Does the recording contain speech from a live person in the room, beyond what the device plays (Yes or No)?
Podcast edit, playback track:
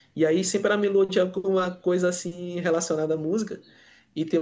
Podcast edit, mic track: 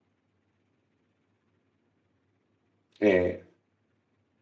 Yes